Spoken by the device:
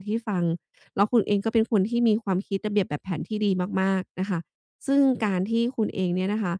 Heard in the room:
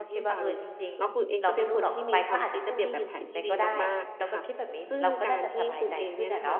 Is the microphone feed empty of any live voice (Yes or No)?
No